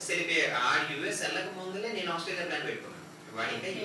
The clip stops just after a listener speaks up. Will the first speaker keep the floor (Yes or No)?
No